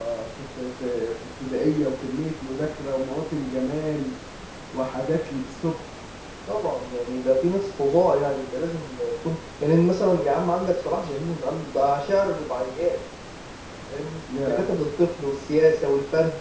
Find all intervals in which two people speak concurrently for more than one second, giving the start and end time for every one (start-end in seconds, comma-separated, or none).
none